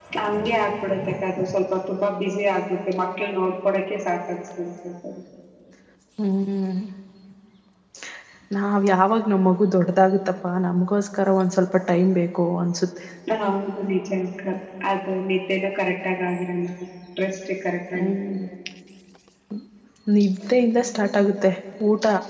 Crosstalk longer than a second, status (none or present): none